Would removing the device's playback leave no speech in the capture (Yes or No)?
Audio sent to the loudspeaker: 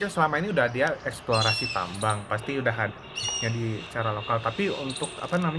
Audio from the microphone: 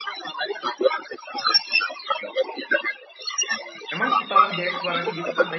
No